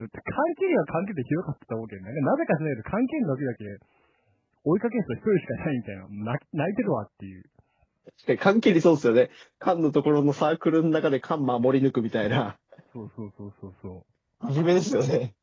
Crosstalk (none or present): none